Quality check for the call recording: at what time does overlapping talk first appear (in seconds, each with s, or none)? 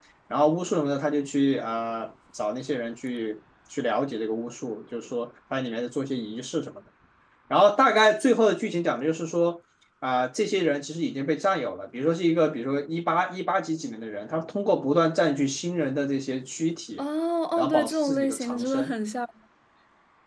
17.6 s